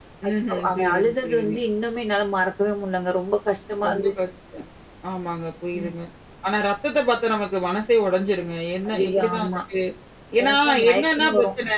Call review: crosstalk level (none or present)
present